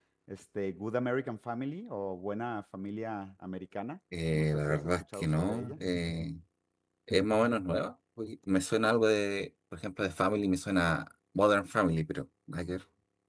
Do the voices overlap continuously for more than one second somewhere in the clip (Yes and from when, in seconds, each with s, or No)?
Yes, from 4.1 s